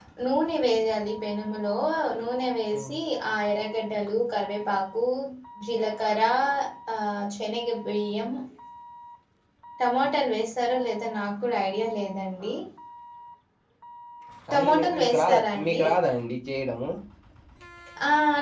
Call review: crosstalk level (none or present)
present